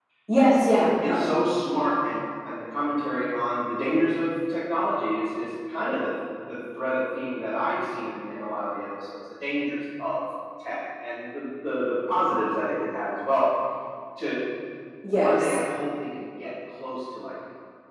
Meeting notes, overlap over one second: none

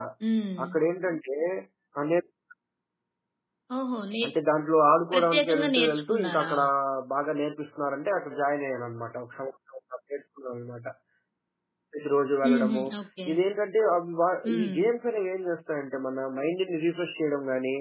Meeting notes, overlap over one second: present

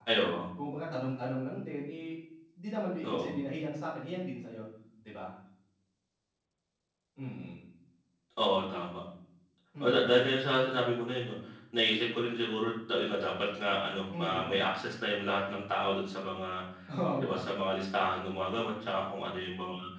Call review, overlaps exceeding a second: none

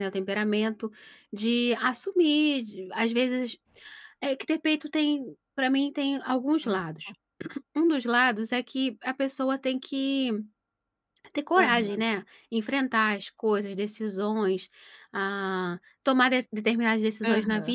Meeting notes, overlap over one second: none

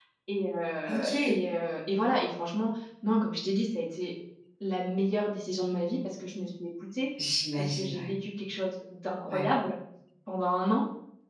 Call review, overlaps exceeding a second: none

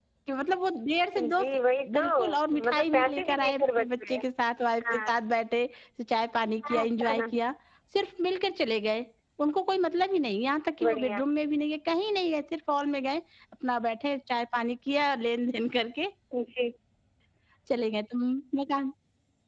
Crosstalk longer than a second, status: present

